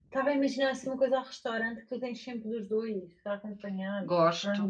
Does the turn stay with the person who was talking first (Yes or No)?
No